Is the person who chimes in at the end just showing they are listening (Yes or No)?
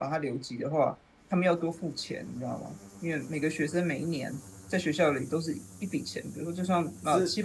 No